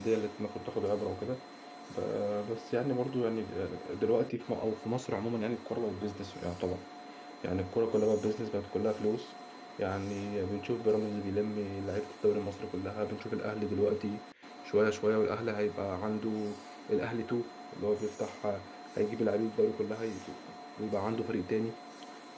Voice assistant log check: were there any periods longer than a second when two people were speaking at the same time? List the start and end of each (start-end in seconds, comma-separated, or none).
none